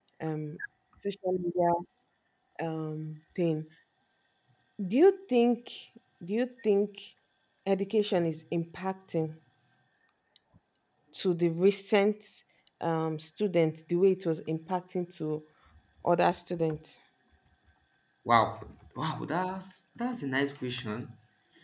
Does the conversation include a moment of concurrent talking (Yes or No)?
No